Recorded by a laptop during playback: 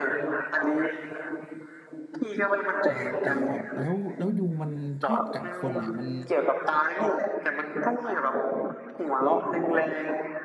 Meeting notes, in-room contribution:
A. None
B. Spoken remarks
B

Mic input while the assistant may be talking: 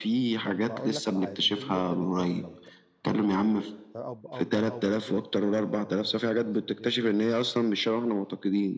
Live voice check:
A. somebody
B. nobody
A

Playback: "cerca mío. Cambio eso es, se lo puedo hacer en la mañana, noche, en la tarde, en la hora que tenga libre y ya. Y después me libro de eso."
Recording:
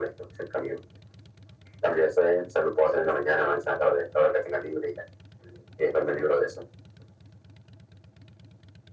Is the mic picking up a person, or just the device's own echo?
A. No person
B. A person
A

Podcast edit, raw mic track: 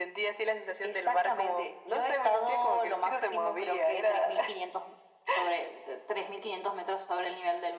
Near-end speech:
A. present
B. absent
B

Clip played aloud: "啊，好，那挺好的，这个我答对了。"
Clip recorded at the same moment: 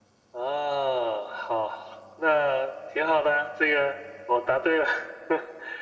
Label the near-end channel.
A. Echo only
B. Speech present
A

